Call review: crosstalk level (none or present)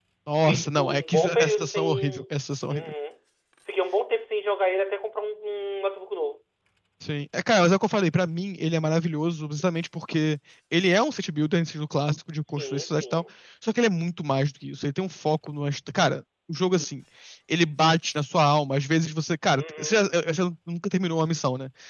present